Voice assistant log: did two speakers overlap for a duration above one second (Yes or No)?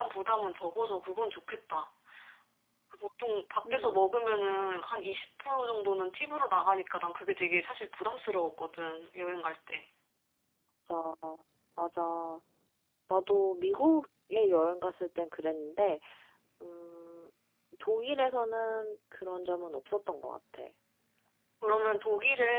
No